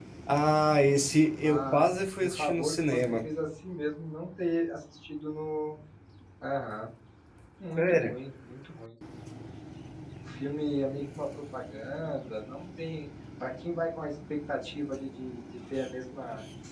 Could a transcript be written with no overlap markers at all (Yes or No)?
No